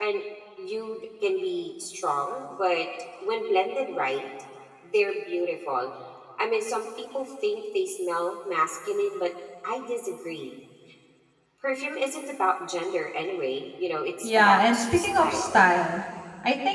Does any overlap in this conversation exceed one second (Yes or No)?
Yes